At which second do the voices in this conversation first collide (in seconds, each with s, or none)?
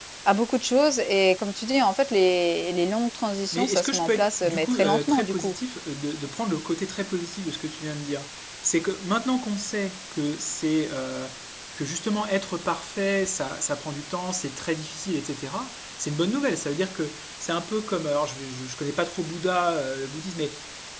3.5 s